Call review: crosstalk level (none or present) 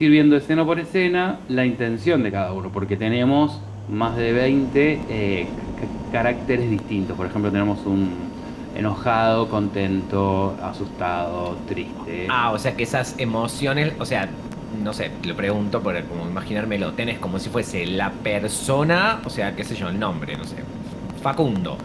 none